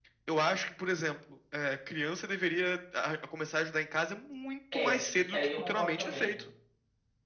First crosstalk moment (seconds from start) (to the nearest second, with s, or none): 5 s